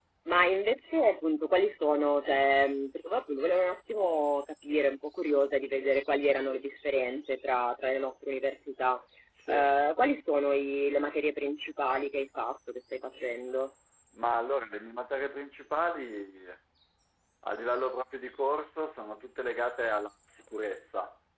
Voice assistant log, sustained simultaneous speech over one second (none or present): none